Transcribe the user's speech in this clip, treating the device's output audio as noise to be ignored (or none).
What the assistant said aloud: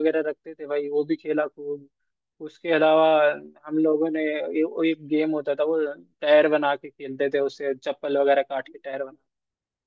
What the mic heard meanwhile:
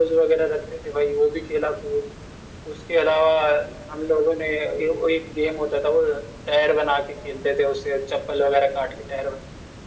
none